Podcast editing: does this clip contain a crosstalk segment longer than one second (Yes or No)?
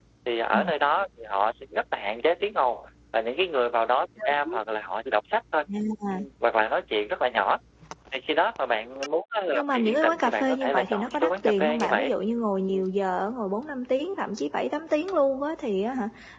Yes